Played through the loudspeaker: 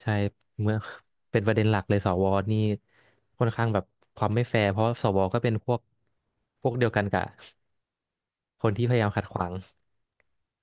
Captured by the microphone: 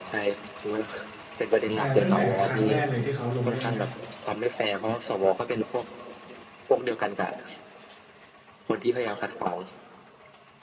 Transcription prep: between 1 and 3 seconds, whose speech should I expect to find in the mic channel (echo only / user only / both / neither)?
both